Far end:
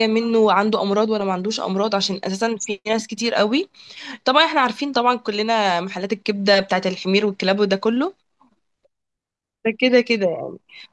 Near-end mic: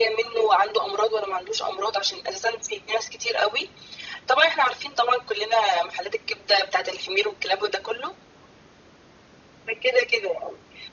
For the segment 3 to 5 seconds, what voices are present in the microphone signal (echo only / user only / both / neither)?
echo only